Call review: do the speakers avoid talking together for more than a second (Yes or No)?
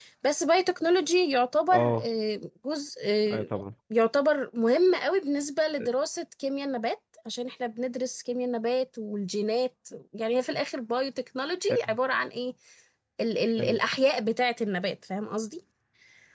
Yes